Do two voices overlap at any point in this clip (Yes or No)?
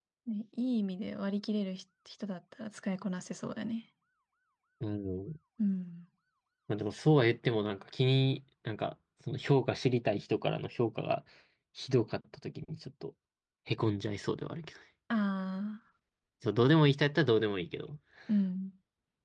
No